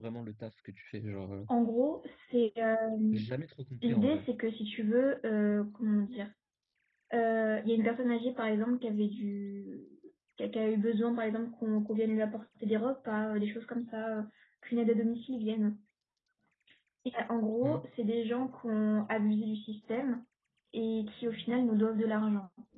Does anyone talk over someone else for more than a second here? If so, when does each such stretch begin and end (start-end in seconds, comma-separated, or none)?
none